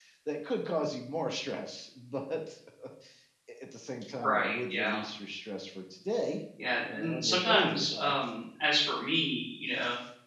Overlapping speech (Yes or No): Yes